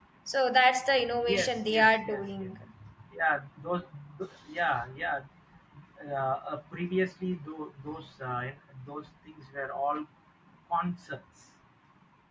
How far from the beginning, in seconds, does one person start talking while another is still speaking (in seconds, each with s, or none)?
1.2 s